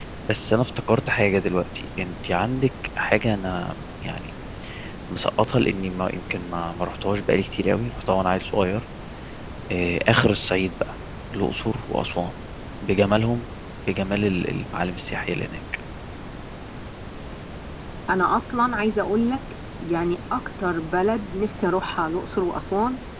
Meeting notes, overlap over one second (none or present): none